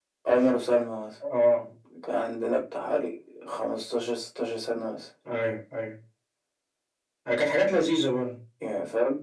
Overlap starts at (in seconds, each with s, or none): none